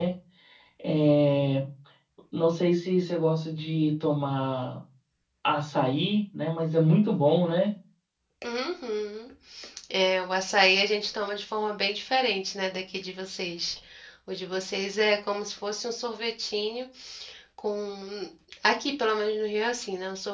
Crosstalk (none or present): none